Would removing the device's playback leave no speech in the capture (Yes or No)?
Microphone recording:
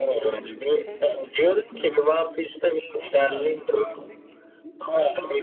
No